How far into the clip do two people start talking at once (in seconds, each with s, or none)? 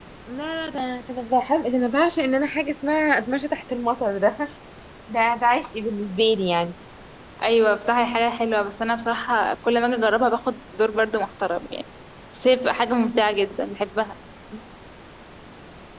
none